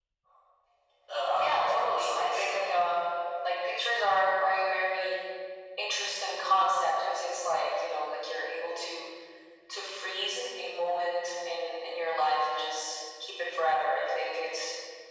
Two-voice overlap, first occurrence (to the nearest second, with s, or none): 1 s